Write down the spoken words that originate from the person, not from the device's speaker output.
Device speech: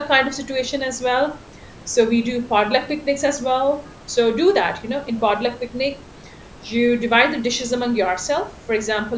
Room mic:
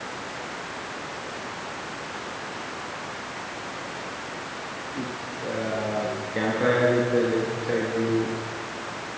it's uh, campfire with a lakeside view,

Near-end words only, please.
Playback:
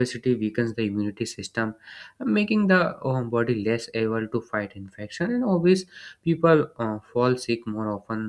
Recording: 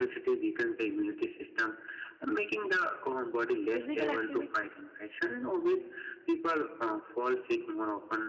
physical activity,

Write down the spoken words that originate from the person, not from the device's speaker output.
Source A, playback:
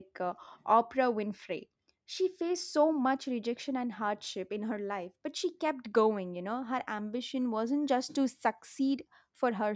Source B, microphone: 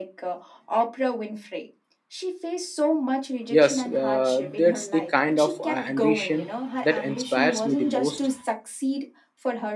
Yes, uh, that's the kind of uh, ambition that inspires me the most.

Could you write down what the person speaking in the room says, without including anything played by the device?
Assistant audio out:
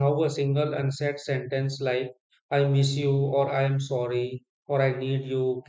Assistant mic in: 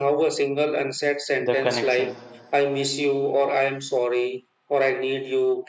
the connection.

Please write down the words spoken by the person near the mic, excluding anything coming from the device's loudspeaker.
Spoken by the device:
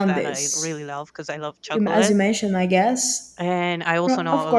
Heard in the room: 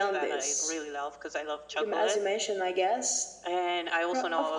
none

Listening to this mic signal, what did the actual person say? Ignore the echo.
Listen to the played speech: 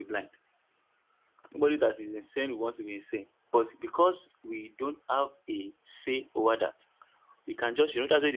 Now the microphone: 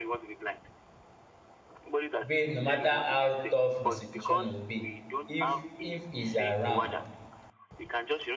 But no matter how tough the situation will be, if if he's around,

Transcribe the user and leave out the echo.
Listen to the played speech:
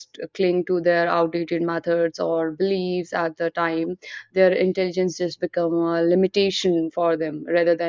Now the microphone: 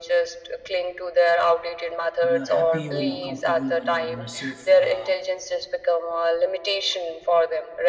When you're happy, when you're comfortable, when you're in a safe. Uh,

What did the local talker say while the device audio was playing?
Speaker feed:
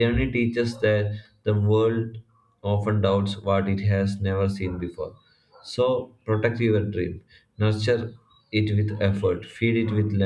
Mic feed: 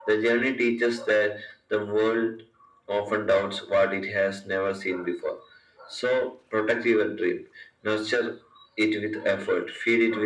none

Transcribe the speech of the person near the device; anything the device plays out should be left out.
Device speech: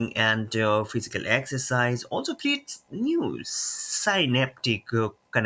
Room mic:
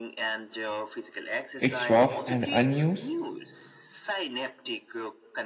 it's rough and unused,

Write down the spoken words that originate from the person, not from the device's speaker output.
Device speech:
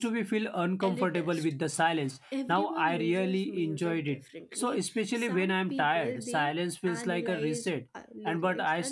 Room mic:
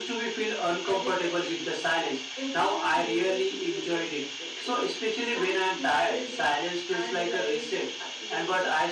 none

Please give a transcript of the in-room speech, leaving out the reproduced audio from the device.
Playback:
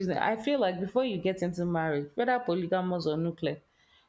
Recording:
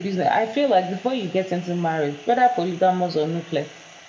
none

